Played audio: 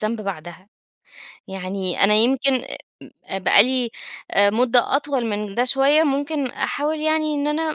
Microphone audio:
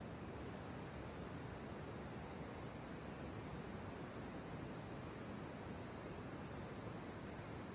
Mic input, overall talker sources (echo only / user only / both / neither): neither